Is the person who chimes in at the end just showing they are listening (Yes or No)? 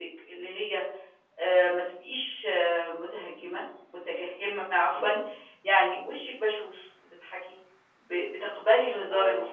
Yes